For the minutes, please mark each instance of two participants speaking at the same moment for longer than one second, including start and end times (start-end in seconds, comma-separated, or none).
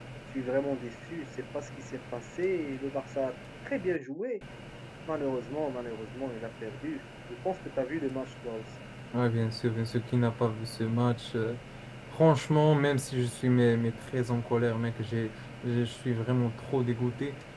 none